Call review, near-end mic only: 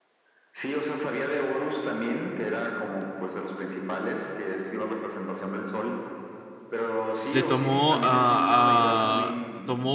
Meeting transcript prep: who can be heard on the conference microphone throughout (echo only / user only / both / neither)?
both